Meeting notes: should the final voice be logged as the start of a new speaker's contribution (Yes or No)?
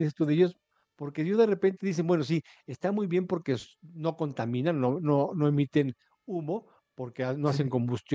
No